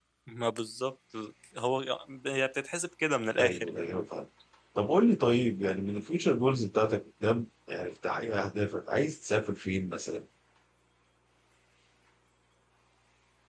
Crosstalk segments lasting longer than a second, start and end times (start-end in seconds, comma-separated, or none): none